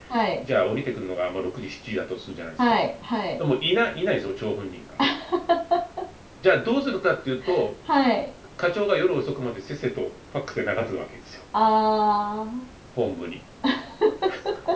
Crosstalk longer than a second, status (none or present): none